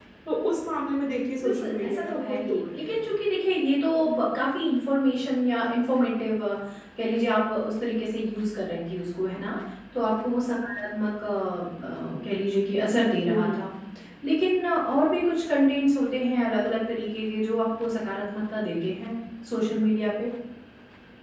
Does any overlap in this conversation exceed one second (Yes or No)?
Yes